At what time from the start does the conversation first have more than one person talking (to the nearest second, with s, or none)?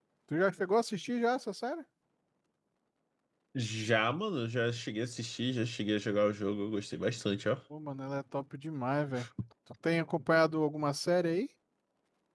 none